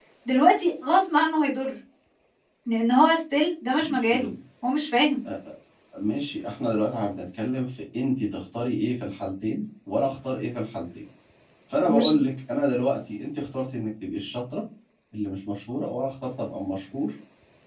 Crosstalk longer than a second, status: none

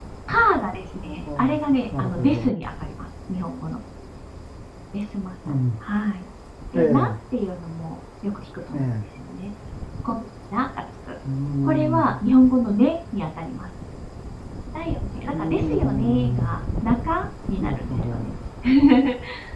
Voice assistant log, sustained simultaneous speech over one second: present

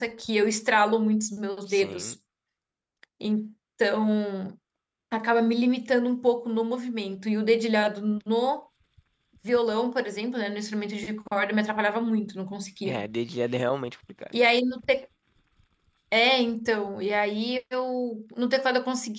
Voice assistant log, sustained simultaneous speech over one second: none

